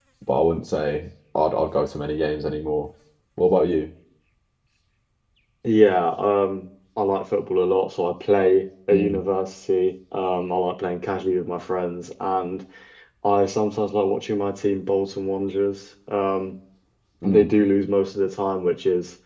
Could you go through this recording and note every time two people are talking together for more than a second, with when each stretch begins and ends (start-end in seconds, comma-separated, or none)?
none